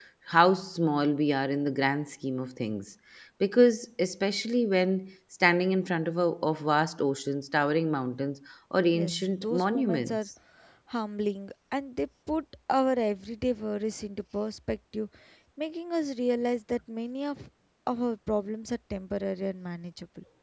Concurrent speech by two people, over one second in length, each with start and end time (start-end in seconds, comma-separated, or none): 8.9-10.2